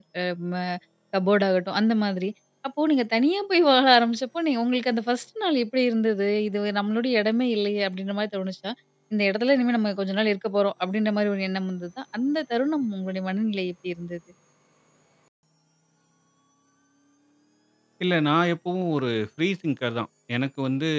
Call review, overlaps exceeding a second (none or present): none